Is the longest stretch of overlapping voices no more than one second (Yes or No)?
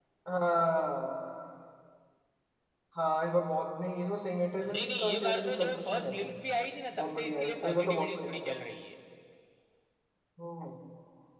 No